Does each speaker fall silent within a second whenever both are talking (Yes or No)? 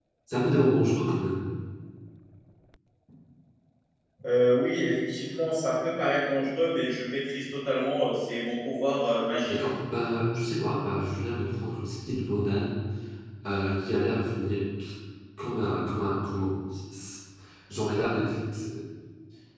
Yes